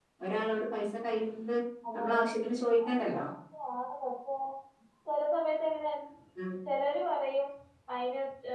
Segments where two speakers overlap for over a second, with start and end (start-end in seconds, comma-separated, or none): none